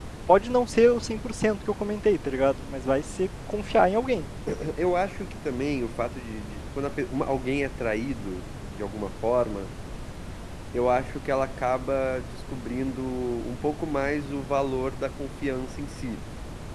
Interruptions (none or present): none